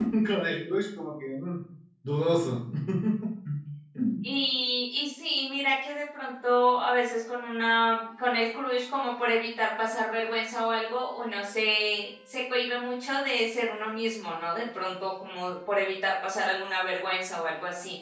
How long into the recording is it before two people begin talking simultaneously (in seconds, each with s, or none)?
none